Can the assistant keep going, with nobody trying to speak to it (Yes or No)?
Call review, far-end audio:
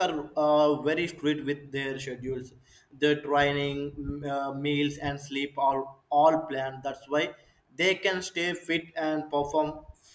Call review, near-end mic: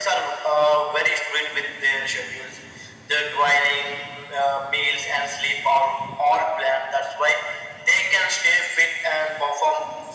Yes